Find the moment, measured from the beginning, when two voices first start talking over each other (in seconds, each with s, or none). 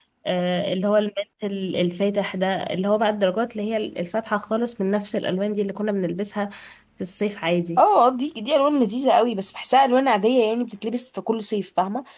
none